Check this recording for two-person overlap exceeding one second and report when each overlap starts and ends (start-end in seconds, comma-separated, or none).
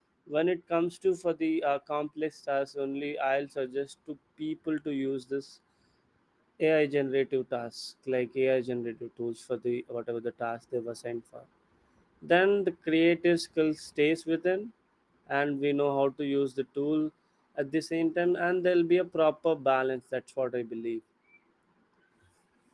none